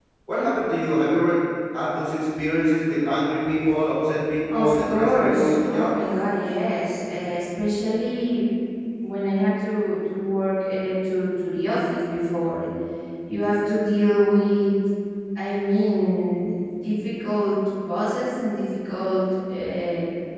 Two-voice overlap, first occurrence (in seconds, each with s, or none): 4.5 s